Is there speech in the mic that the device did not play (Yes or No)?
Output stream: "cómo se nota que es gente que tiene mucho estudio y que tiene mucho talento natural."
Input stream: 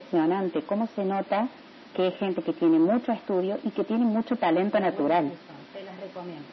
Yes